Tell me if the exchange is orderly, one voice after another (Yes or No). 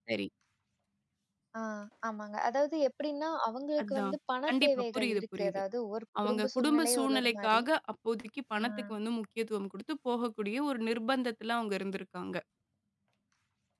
No